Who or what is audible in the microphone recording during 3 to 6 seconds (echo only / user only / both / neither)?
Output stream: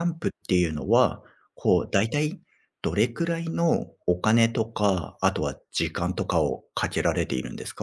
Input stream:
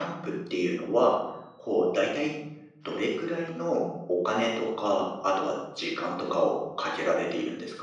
echo only